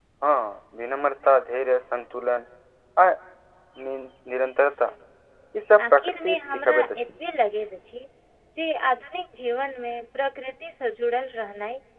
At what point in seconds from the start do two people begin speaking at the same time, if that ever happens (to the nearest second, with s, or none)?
6 s